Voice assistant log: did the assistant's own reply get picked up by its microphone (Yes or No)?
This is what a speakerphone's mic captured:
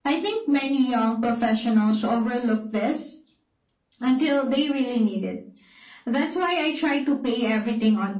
Yes